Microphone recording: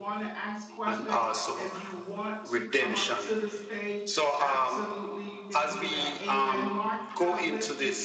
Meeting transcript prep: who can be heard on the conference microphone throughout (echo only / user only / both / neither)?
both